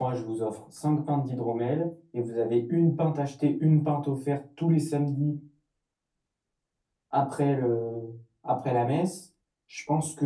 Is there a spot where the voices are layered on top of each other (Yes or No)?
No